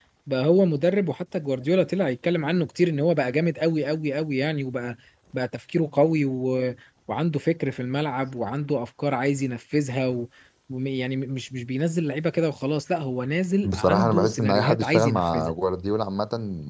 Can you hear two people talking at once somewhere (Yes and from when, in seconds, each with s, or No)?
Yes, from 13.6 s